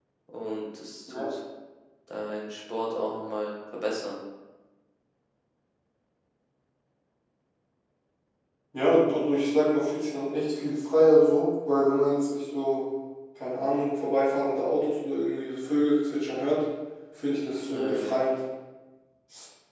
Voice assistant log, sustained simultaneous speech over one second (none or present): none